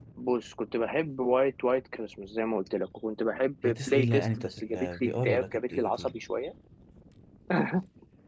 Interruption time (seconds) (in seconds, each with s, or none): 3.6 s